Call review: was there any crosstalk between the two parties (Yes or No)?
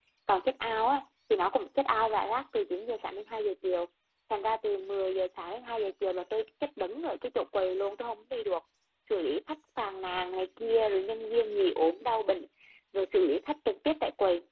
No